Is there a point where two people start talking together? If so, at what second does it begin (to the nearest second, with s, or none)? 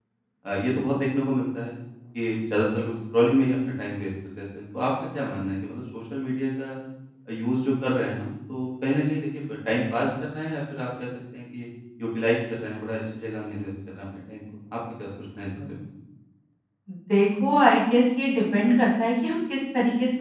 none